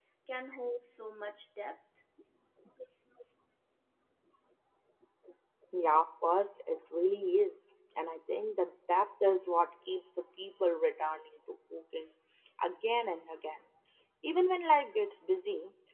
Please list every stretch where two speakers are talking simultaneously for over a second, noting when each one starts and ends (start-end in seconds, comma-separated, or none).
none